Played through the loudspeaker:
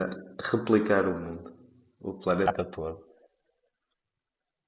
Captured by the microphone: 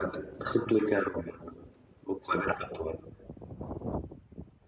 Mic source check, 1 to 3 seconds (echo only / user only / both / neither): echo only